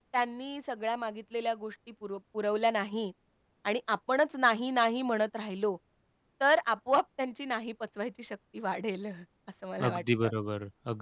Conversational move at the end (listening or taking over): taking over